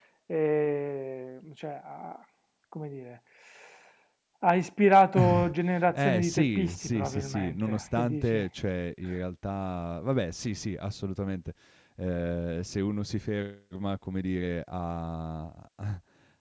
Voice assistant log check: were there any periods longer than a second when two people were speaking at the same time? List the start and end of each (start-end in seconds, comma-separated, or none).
5.9-8.4